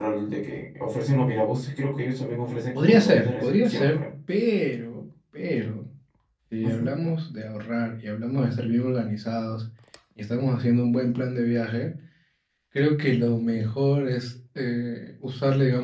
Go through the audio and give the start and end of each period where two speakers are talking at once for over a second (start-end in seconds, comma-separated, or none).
2.7-4.0